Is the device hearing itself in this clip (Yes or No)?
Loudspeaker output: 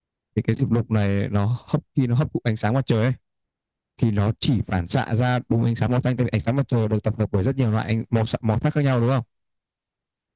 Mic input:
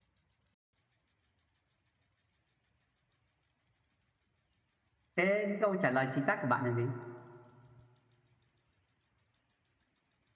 No